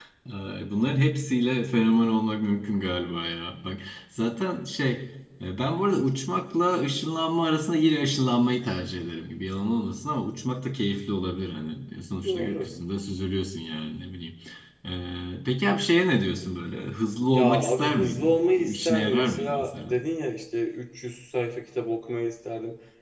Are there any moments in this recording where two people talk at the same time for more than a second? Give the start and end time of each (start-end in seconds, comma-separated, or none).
17.3-19.9